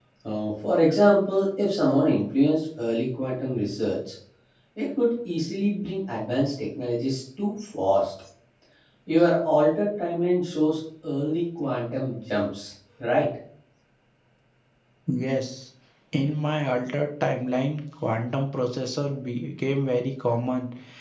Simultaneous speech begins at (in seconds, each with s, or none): none